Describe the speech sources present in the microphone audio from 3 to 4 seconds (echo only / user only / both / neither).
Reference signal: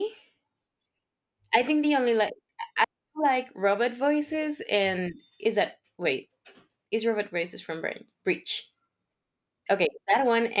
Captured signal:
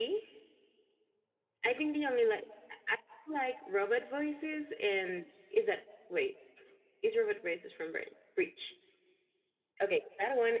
echo only